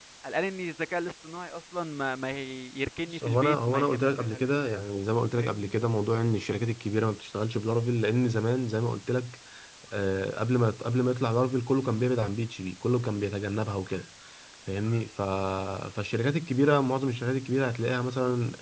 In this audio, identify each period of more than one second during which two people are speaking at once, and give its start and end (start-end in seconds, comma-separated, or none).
3.1-4.6